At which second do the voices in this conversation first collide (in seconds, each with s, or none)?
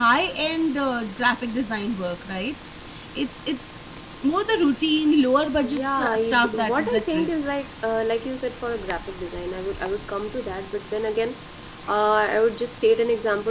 5.6 s